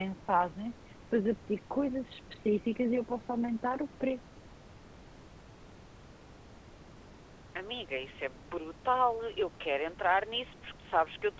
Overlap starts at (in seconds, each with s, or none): none